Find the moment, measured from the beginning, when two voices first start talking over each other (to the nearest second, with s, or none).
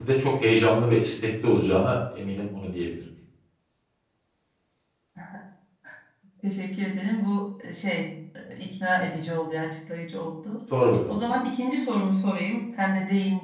none